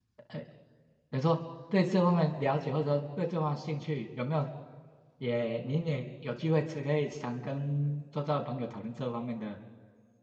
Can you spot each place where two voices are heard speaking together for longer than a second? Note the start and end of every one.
none

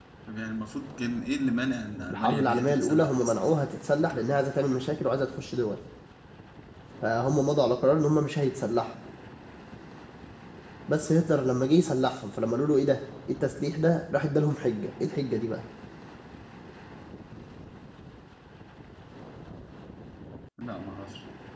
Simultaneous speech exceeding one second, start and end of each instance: 2.1-3.3

